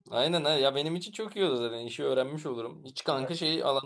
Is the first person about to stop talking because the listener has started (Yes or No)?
No